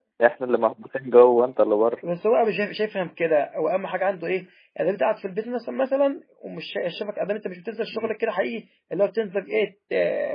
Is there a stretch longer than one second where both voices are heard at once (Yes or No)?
No